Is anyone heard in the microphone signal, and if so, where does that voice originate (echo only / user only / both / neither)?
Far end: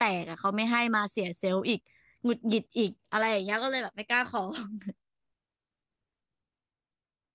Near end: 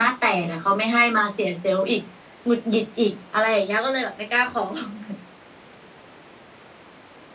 echo only